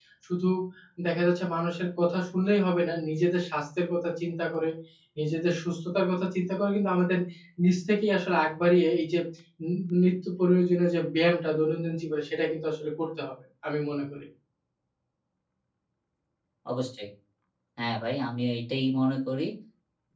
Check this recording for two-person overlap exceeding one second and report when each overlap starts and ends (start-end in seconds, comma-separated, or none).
none